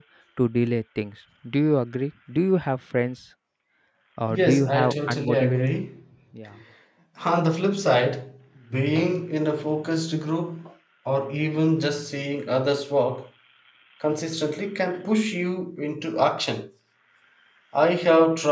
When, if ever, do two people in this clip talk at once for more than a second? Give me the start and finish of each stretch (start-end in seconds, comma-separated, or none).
4.3-5.7